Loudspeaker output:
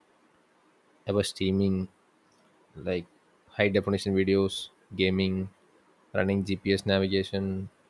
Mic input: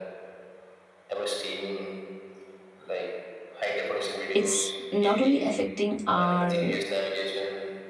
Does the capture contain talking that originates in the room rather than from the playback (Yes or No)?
Yes